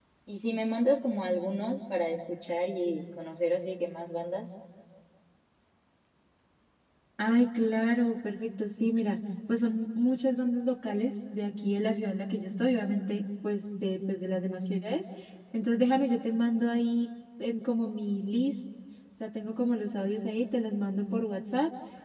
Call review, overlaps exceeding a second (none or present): none